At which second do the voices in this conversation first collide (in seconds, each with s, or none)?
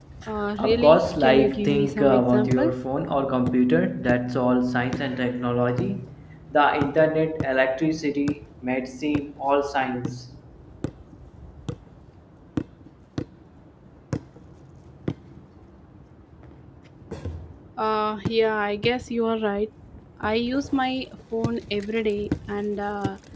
0.6 s